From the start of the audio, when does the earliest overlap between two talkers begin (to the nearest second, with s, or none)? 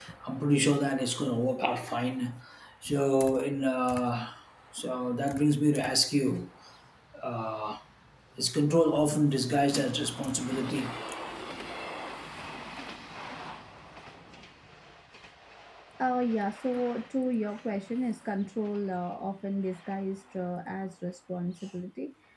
none